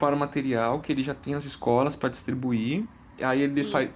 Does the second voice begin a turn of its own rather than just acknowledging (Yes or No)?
No